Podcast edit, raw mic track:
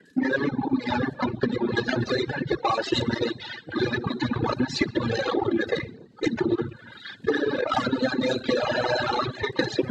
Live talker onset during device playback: none

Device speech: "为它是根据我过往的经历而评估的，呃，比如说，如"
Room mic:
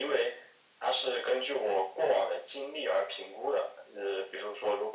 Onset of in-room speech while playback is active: none

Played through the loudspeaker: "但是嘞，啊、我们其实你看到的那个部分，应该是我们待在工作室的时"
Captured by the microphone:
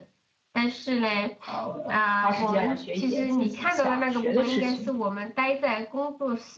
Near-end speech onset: 1.4 s

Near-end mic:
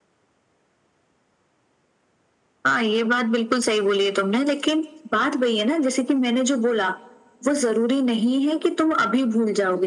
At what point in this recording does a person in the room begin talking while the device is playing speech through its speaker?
none

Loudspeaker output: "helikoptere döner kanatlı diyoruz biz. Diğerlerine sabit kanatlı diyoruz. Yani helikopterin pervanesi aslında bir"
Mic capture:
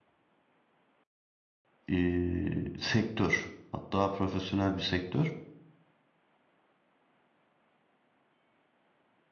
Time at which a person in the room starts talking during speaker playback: 1.9 s

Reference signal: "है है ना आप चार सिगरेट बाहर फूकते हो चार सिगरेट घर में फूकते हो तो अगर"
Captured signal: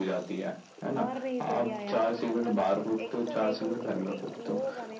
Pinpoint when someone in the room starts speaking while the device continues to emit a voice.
1.0 s

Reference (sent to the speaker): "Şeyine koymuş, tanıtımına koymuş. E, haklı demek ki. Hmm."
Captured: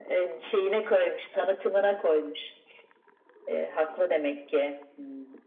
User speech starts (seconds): none

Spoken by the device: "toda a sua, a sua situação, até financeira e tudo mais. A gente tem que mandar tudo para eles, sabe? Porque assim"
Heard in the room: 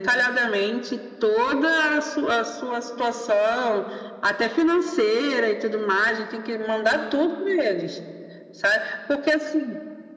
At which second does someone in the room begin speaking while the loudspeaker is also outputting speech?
none

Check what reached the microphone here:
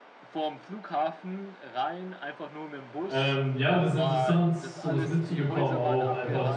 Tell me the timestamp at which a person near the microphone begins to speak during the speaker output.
3.1 s

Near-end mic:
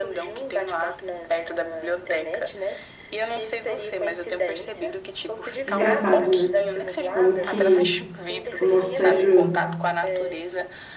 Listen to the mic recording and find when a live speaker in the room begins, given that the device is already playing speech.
5.7 s

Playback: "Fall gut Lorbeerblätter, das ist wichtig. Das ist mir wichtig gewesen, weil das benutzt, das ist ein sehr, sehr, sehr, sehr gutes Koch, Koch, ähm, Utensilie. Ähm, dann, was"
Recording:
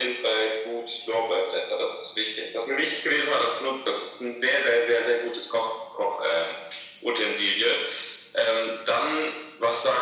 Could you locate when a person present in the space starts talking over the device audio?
none

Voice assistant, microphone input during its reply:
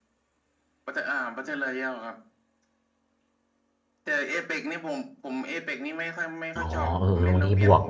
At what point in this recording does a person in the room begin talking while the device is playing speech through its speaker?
6.5 s

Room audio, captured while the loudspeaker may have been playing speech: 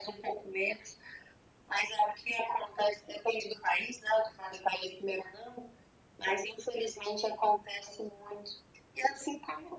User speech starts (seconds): none

